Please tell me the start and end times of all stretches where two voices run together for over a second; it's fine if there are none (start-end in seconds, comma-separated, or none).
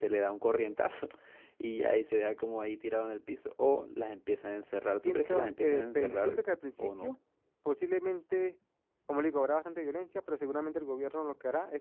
5.0-6.4